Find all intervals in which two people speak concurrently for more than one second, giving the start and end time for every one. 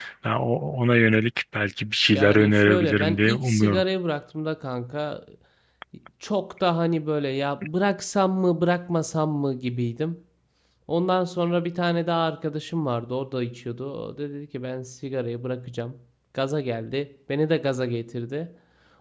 2.1-3.8

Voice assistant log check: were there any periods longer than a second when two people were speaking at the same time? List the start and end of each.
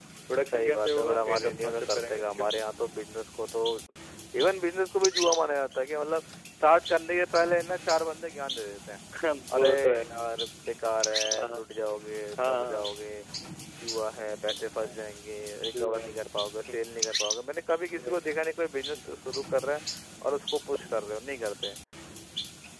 0.5-2.5

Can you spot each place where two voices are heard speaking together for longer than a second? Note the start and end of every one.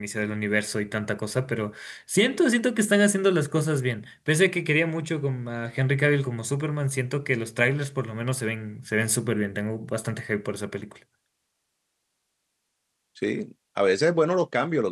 none

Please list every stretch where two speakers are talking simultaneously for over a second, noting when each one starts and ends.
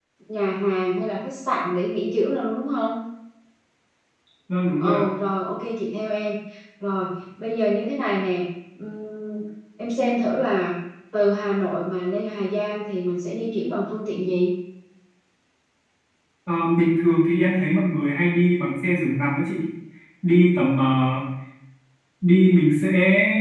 none

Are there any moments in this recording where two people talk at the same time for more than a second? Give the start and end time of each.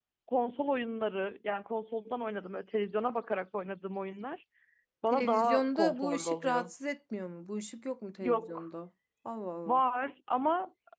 5.1-6.7

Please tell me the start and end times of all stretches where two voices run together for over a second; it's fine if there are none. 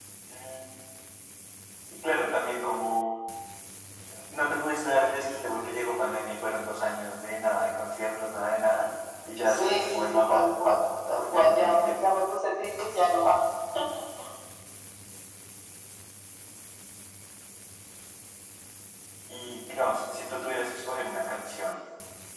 9.5-12.0

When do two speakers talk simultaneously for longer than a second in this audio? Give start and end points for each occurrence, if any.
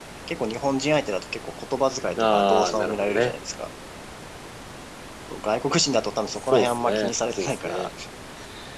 2.2-3.4, 6.5-7.9

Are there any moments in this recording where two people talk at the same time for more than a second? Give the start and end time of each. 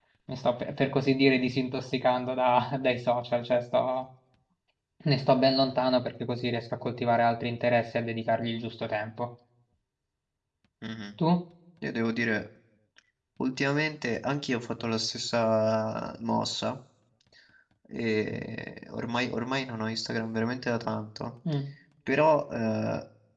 none

